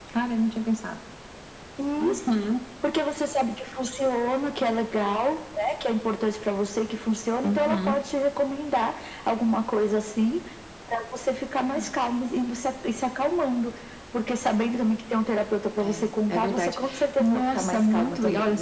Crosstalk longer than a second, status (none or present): present